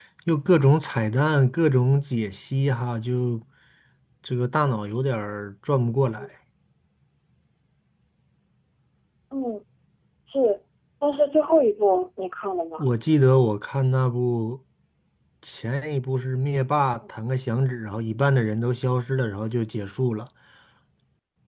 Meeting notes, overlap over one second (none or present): none